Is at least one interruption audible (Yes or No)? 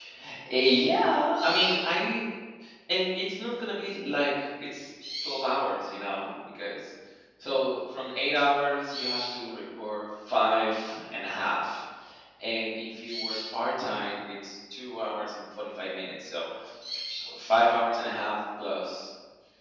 No